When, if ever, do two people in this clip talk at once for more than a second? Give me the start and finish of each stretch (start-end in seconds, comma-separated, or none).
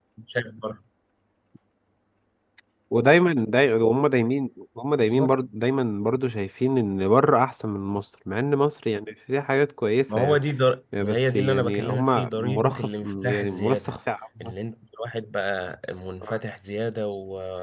11.0-13.9